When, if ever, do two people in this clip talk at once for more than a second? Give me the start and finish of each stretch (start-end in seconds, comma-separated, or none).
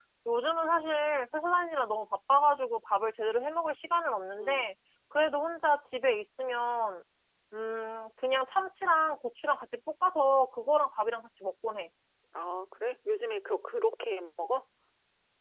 none